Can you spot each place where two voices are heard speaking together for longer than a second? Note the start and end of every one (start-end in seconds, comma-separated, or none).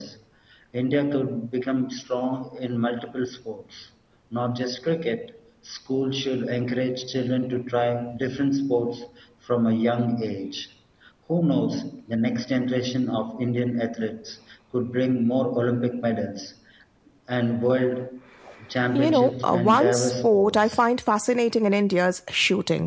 19.0-20.8